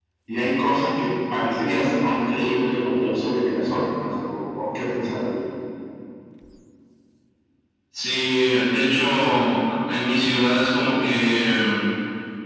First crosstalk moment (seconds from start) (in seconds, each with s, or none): none